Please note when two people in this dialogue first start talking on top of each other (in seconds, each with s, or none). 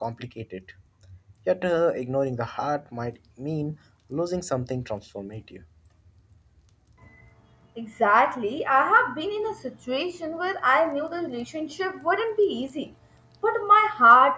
none